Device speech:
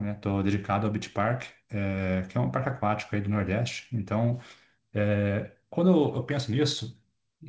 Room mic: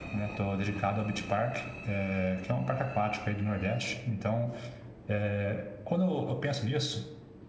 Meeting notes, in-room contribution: none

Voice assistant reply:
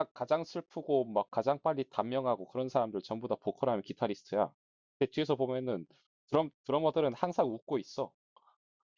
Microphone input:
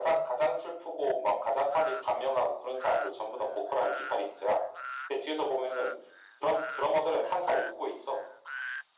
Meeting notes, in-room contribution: none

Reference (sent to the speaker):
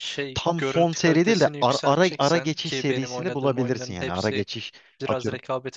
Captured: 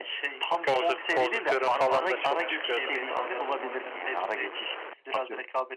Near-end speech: present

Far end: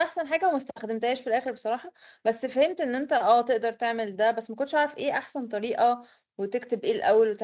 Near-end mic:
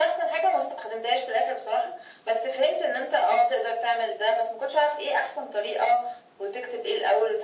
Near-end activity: none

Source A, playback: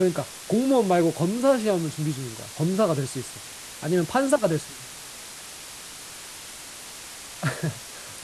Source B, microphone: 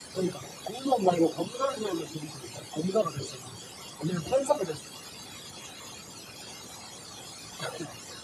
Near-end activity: none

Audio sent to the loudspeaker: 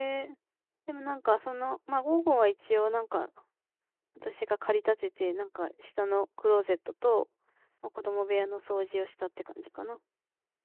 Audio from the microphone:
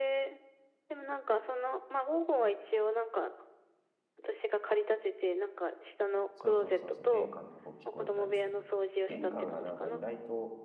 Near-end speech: present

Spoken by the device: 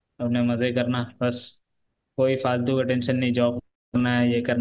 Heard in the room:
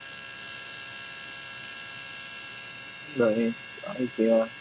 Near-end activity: present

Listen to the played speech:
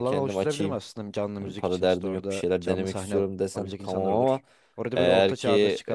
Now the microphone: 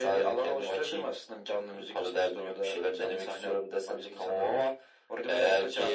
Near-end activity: none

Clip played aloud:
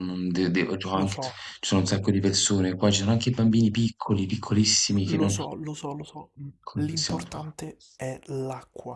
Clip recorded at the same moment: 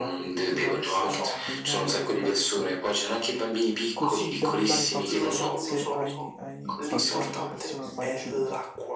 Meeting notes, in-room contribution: present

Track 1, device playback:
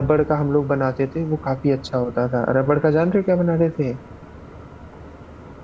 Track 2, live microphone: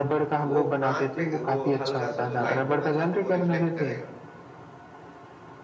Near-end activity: present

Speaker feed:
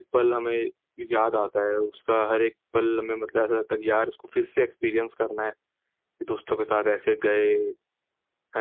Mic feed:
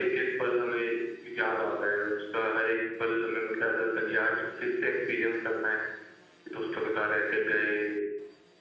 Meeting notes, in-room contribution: none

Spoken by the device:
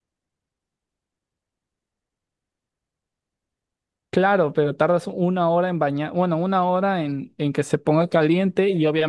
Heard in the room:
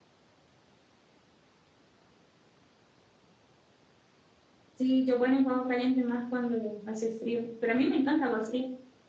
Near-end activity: present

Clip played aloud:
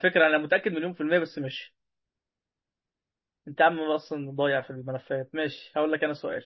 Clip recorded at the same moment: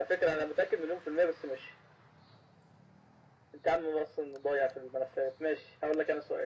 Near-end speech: none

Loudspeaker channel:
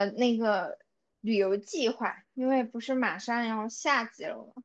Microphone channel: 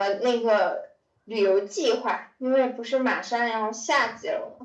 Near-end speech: none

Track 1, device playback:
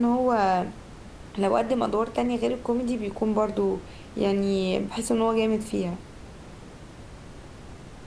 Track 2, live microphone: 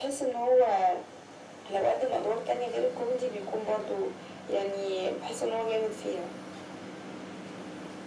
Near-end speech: none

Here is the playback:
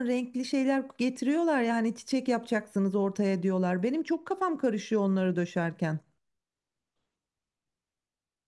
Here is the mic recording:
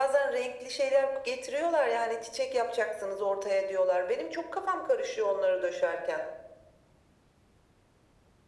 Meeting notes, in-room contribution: none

